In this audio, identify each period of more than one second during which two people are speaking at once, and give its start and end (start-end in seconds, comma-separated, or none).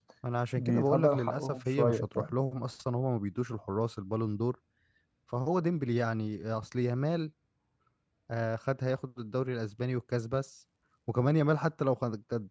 0.6-2.3